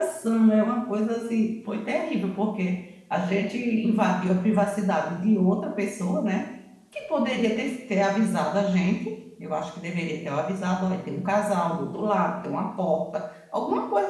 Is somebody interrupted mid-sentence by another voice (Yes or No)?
No